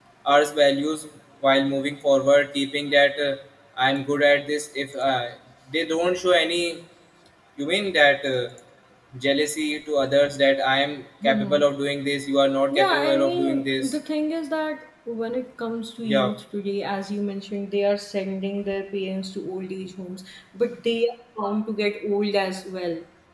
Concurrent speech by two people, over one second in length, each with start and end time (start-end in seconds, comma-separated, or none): 12.7-14.0